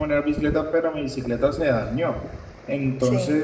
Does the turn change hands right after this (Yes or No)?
No